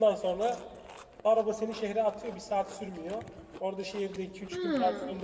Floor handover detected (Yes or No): No